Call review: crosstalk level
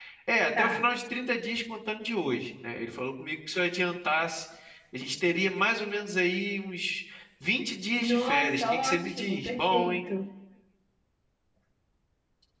present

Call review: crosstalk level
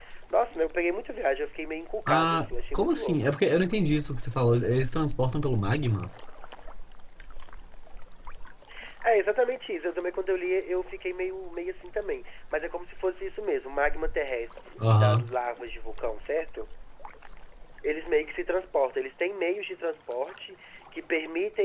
present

